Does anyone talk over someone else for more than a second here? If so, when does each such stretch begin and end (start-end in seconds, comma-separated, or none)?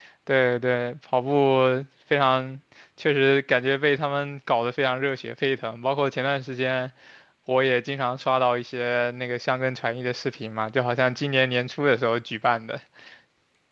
none